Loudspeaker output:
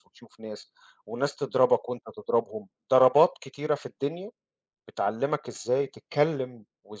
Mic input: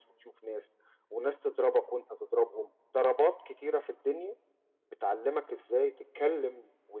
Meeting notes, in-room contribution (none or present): none